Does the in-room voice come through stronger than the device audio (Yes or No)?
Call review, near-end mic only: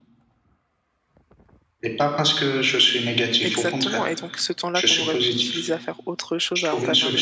No